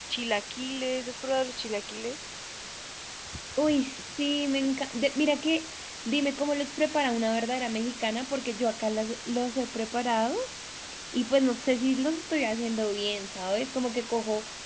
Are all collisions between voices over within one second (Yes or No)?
Yes